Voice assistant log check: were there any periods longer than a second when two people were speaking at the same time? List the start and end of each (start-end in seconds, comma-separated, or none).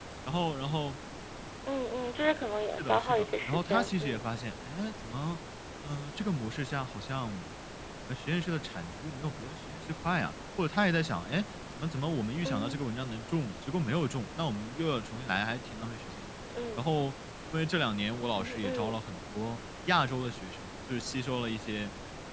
2.8-4.2